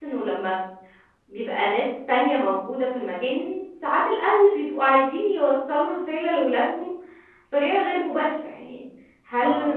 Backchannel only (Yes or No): Yes